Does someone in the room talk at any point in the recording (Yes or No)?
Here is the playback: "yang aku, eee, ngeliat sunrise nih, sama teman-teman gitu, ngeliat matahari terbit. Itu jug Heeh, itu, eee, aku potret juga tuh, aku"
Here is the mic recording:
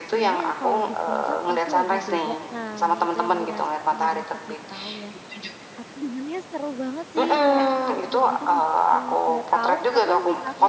Yes